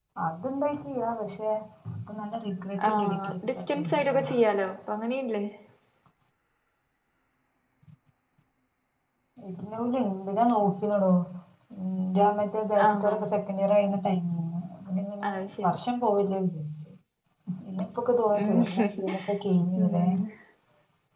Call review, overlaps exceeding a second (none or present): present